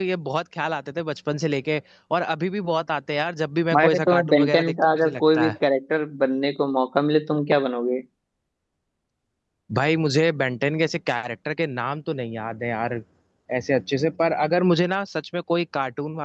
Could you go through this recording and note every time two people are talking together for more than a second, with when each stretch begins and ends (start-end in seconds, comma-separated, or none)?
3.7-5.6